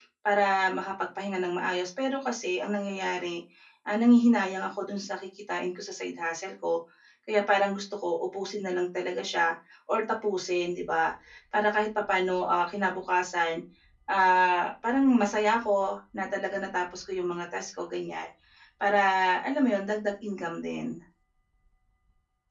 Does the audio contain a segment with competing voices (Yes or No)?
No